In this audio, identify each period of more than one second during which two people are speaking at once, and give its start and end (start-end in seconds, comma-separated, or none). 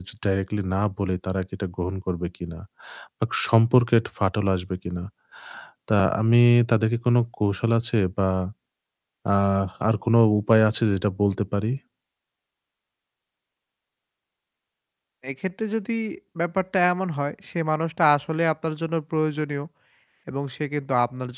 none